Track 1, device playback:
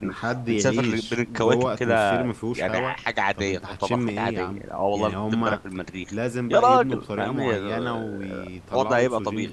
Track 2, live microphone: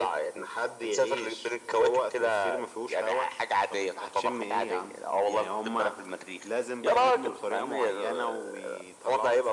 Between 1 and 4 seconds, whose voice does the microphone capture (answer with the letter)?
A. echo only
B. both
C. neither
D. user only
A